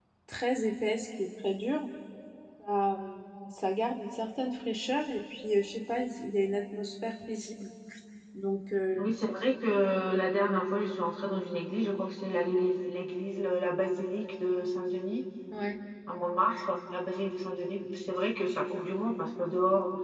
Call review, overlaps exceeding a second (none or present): none